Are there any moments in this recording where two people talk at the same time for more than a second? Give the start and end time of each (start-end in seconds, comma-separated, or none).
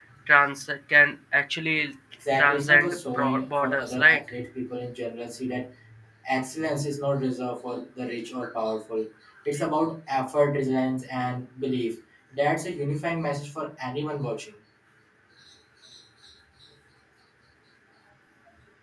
2.4-4.2